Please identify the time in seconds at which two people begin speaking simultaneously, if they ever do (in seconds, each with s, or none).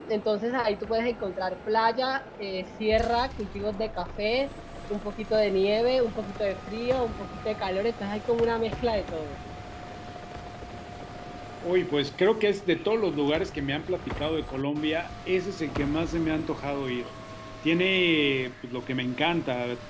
none